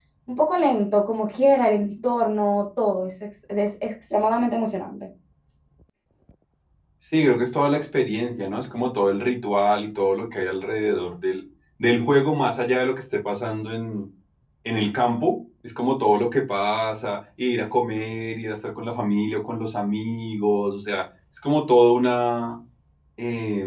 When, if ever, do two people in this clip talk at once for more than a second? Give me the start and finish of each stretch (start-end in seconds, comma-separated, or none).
none